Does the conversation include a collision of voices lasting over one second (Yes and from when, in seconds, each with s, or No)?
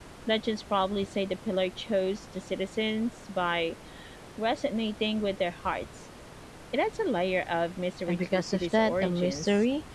Yes, from 8.1 s